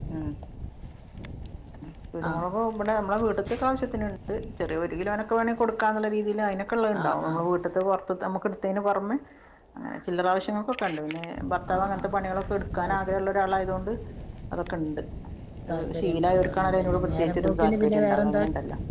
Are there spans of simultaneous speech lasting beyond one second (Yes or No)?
Yes